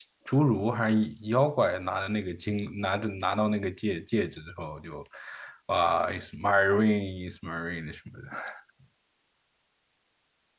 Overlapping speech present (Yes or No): No